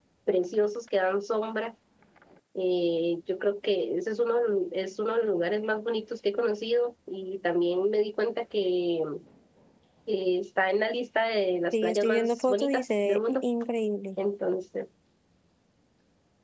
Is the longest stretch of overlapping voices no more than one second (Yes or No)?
No